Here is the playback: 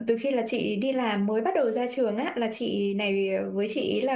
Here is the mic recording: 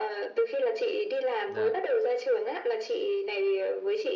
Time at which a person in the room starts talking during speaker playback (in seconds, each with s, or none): 1.5 s